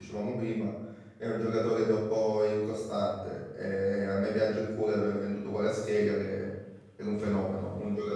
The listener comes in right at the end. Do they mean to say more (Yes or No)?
No